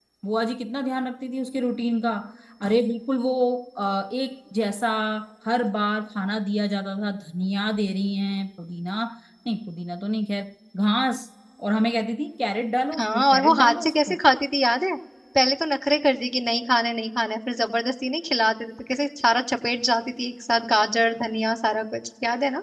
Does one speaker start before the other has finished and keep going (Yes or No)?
Yes